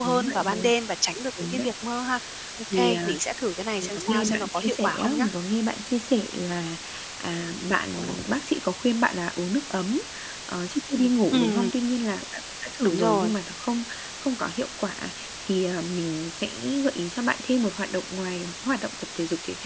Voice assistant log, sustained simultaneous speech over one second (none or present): present